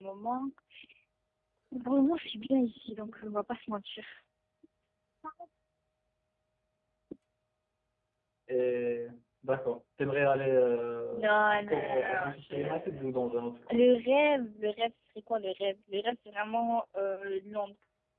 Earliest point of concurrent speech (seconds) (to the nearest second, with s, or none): 11 s